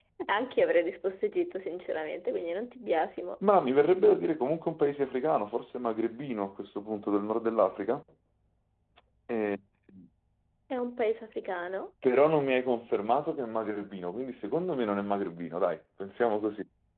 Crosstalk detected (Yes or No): No